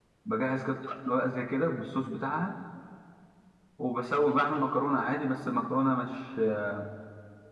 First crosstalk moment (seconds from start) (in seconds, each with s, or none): none